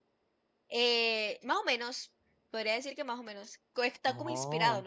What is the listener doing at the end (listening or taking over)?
listening